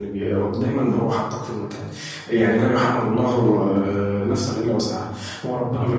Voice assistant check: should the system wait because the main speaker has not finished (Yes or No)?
Yes